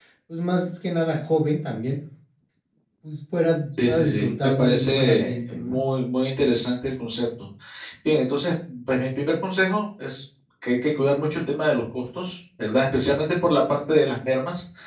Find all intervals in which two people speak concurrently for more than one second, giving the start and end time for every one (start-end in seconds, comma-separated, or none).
3.8-5.8